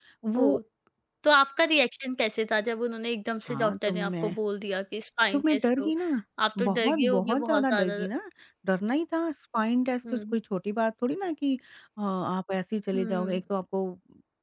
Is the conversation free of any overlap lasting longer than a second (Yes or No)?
No